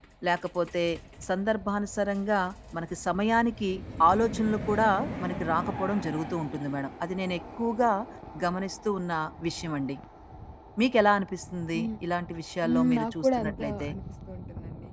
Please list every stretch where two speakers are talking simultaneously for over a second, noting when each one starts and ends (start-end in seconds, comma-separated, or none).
12.7-13.9